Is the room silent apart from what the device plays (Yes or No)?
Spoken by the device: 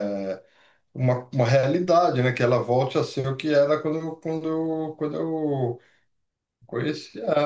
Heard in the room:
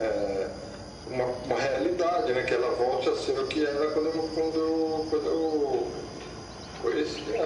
Yes